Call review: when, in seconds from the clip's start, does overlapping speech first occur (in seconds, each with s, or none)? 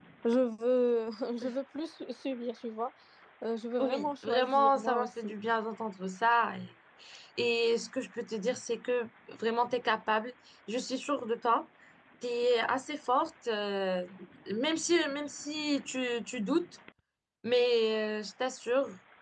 3.8 s